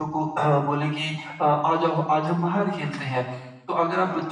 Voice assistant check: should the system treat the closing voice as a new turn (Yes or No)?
No